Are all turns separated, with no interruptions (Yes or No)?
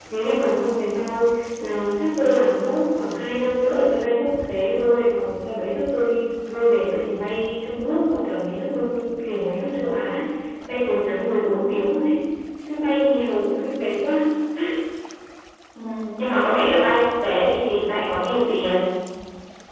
Yes